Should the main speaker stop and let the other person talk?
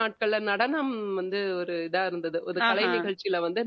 No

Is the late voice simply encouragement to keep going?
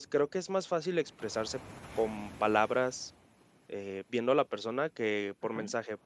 Yes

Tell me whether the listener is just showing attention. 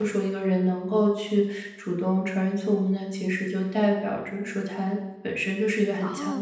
No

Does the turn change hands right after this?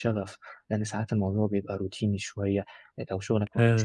No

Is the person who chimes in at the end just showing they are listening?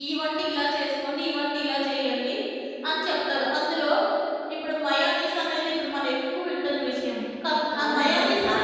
No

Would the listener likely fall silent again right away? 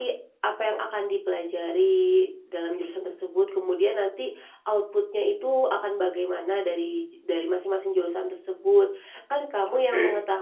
Yes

